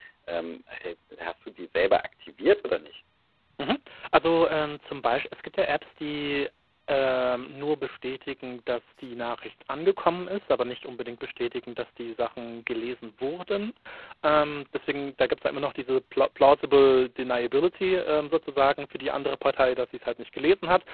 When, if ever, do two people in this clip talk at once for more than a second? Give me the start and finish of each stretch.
none

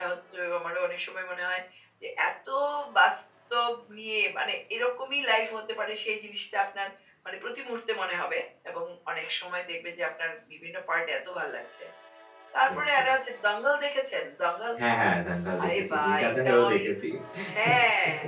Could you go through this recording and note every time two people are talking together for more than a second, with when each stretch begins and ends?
15.6-16.8

